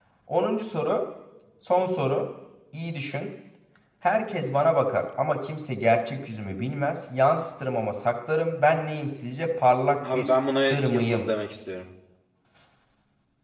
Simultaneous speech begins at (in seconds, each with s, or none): 10.0 s